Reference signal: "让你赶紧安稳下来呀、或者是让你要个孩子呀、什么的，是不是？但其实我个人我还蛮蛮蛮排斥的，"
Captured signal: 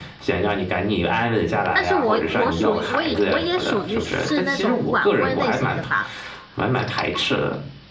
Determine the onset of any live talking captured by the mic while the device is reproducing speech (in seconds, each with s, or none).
1.7 s